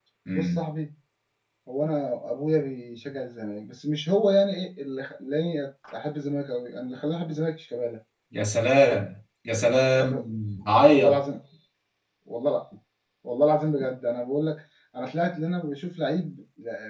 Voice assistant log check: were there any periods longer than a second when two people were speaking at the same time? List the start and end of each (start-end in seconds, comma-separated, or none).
none